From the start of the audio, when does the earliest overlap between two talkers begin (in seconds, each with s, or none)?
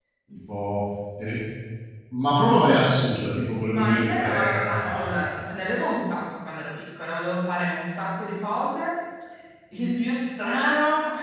3.6 s